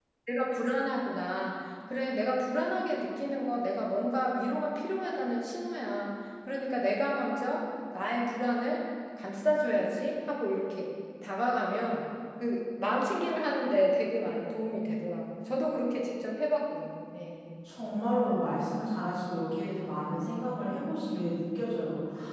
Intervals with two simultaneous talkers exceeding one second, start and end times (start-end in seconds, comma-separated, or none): none